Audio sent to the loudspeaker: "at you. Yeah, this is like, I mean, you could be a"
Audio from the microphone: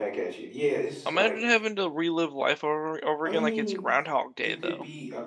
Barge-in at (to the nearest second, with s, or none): 1 s